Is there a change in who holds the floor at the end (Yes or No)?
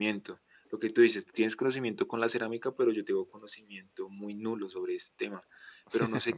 No